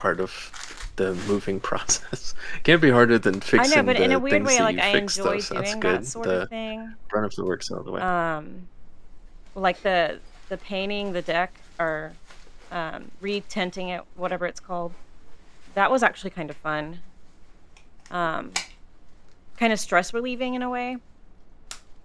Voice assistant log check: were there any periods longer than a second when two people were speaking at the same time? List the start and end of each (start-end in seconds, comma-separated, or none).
3.6-6.4